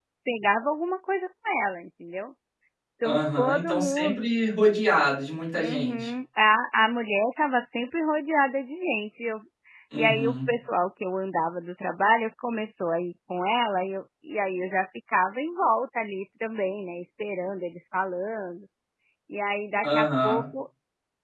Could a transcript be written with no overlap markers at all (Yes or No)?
No